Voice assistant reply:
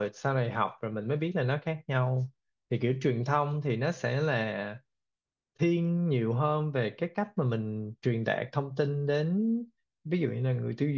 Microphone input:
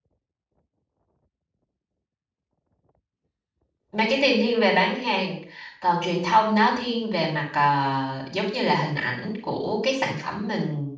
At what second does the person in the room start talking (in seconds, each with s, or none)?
3.9 s